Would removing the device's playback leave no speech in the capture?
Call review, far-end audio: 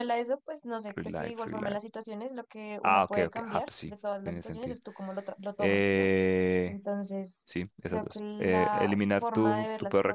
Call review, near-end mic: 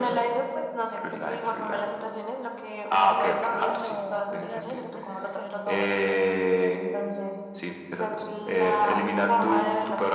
No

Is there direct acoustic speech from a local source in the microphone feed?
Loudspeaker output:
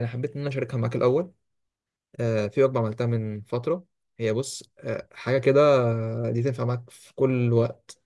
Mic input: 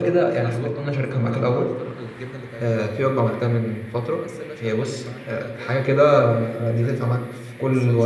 Yes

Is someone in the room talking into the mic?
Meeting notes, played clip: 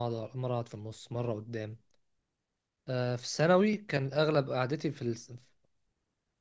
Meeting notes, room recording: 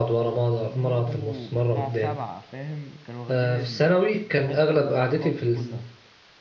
Yes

